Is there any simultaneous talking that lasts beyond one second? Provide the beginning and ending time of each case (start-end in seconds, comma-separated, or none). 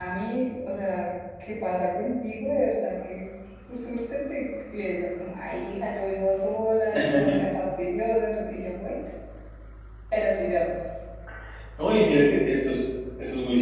none